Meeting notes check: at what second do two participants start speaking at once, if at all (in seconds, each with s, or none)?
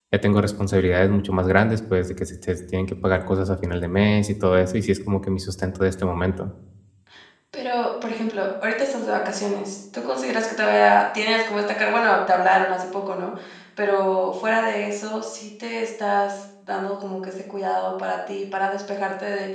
none